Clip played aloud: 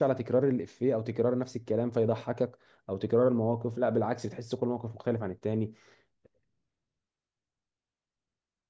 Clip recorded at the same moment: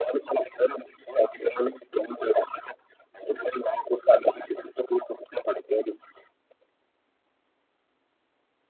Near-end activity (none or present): none